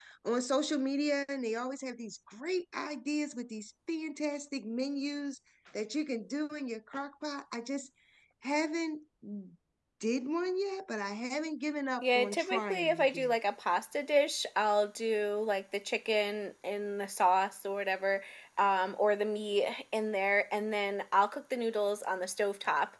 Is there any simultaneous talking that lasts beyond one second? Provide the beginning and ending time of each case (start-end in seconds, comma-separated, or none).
12.0-13.3